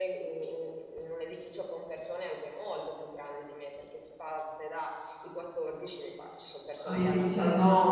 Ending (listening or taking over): taking over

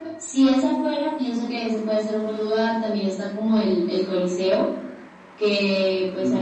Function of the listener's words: listening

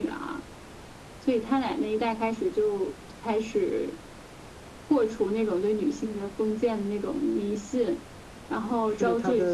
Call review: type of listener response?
taking over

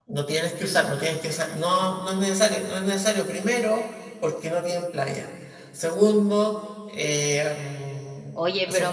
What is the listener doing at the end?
taking over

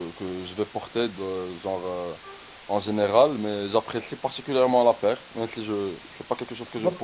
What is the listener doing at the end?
taking over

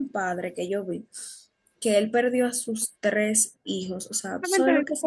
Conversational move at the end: taking over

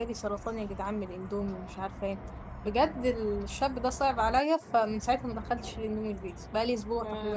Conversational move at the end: taking over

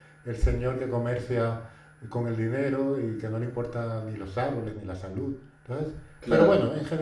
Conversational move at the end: listening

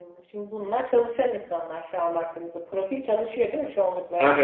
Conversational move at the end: taking over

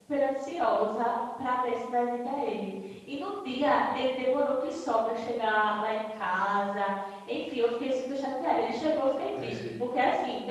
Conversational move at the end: listening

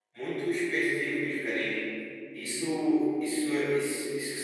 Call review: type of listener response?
listening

